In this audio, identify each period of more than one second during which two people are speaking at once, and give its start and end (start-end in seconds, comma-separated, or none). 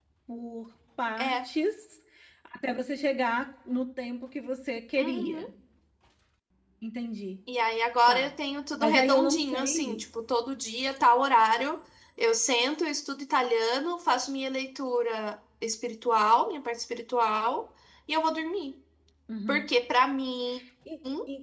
8.8-10.0